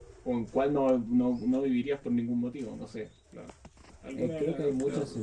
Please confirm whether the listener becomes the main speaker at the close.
Yes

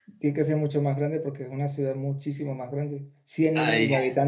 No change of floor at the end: Yes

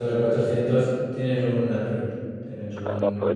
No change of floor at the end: No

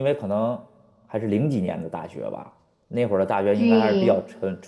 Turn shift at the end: No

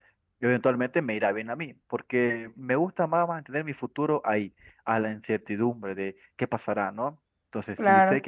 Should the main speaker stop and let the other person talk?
No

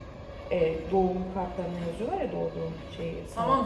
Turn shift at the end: Yes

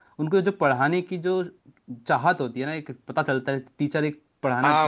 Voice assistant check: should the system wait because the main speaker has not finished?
No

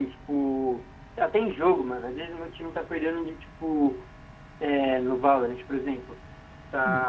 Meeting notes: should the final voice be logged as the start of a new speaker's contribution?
No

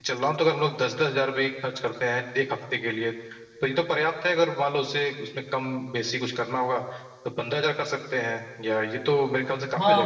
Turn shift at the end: Yes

